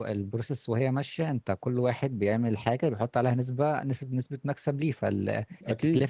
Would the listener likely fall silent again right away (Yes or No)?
Yes